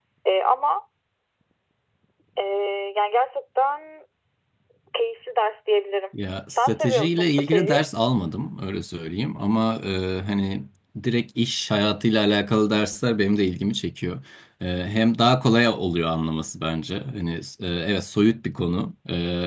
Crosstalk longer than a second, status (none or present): present